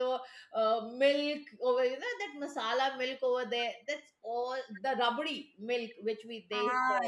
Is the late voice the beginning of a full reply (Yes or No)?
Yes